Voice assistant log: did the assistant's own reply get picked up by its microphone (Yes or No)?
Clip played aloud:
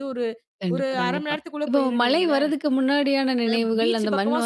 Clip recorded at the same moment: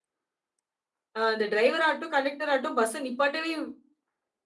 No